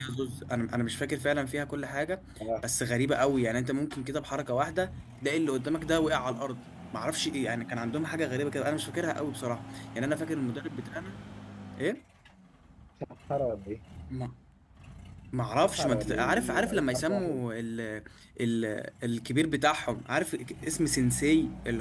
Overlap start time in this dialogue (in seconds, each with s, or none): 15.6 s